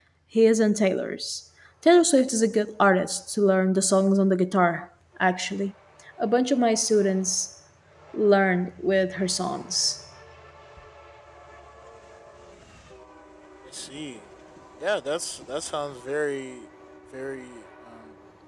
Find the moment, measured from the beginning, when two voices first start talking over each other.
none

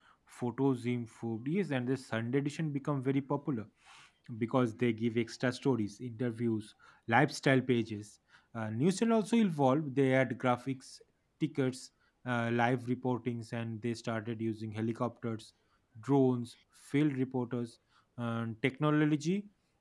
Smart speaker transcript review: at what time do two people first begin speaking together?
none

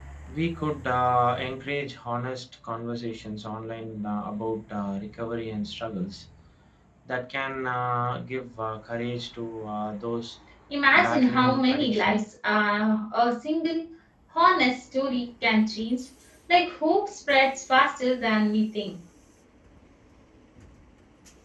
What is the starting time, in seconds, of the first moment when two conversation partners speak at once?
10.9 s

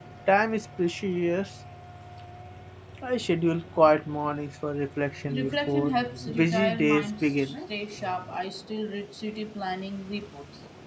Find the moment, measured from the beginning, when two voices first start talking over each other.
5.3 s

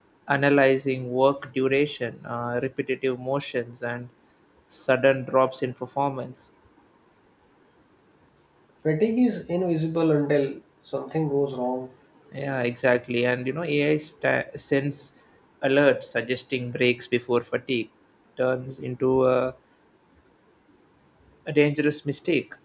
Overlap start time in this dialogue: none

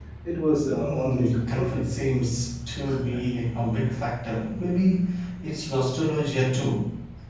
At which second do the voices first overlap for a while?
0.7 s

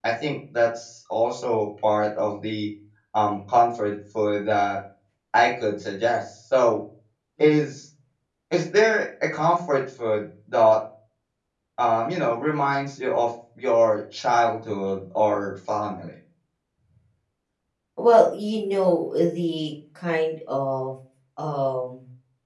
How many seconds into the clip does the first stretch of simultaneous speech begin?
none

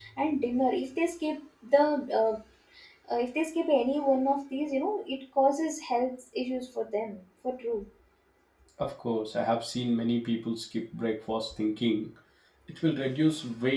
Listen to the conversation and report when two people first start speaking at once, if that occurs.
none

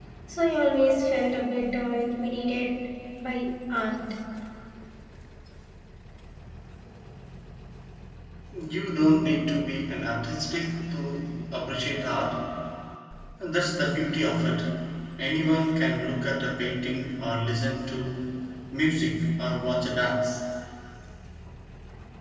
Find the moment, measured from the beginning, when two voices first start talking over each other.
none

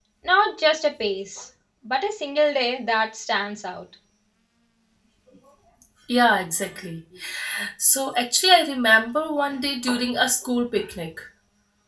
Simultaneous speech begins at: none

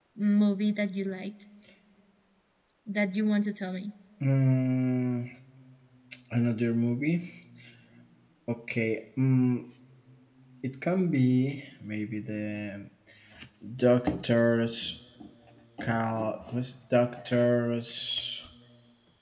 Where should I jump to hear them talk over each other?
none

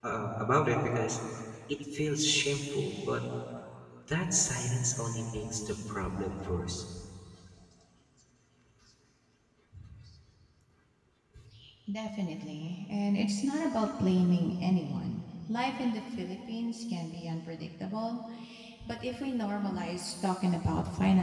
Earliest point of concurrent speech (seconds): none

